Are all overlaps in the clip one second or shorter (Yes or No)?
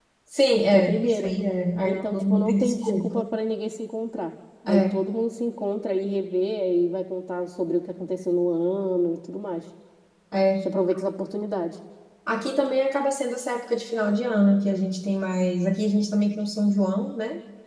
No